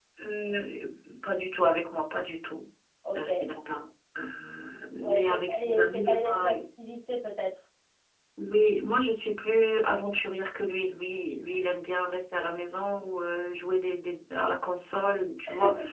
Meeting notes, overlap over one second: present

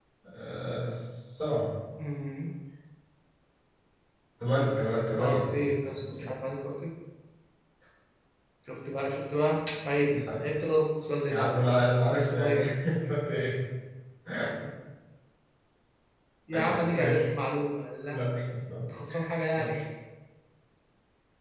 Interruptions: present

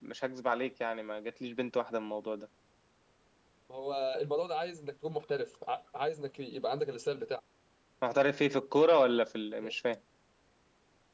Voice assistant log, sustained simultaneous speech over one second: none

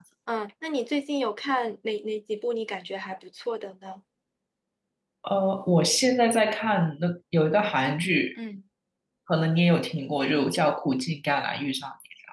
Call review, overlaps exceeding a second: none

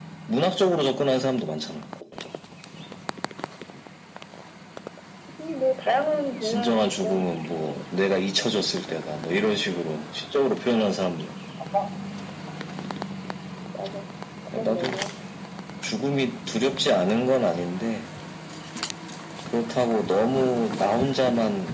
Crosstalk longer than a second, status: present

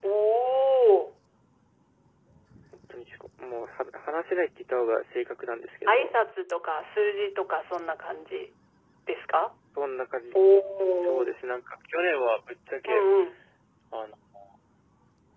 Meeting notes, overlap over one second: none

